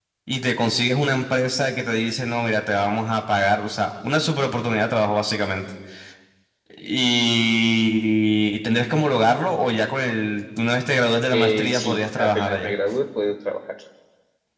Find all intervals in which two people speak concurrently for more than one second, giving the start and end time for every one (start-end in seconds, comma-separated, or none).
11.3-12.7